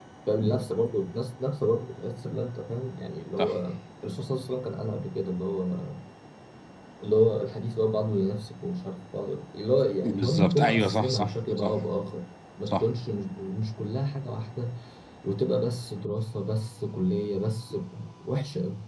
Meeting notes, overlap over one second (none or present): present